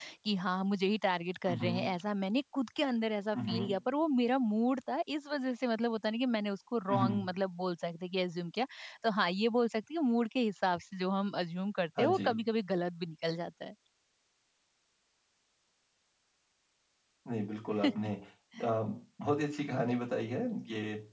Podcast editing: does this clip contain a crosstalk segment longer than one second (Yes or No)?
No